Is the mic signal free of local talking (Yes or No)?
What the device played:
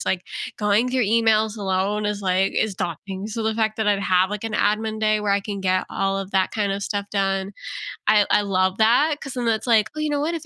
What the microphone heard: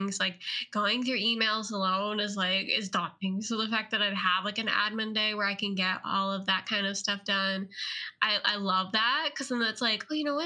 Yes